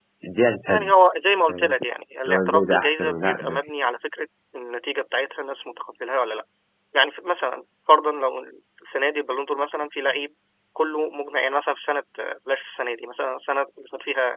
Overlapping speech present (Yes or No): Yes